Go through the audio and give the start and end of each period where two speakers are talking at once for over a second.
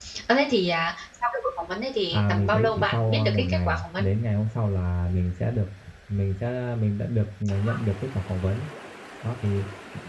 2.1-4.1

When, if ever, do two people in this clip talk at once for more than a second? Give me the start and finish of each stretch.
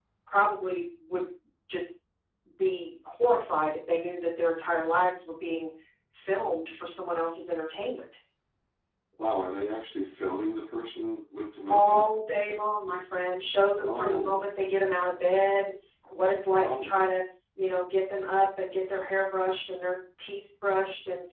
none

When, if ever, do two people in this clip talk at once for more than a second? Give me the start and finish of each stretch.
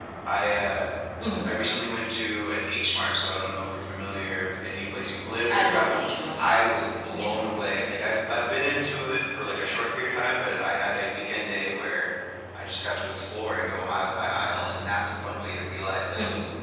none

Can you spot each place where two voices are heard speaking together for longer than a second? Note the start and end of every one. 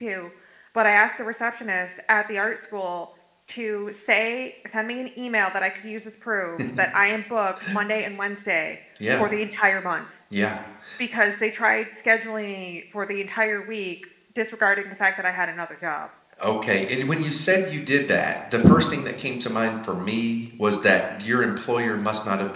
none

